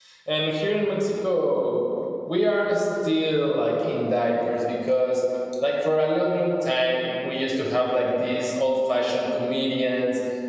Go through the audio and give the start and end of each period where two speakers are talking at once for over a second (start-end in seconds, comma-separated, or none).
none